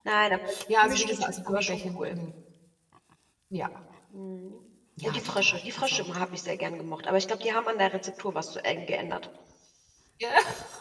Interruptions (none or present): present